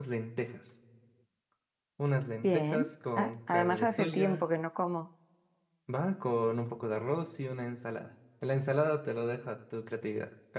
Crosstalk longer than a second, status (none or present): present